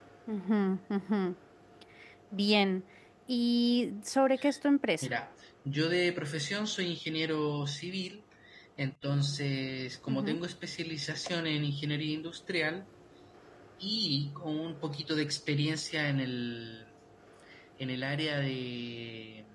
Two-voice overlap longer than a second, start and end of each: none

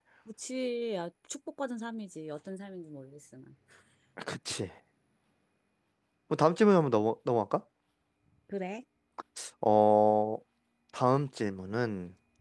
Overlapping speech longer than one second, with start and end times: none

